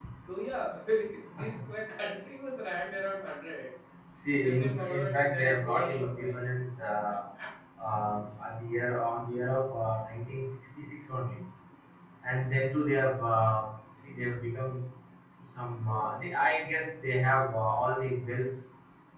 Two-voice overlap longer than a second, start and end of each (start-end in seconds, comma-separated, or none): 4.3-6.4